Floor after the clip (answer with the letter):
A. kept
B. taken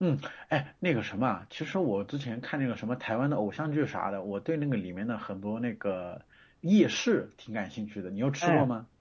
B